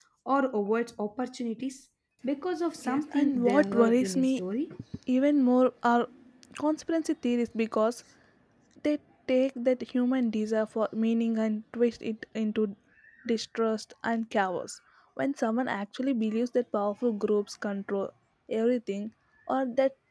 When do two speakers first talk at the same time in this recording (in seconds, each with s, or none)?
2.8 s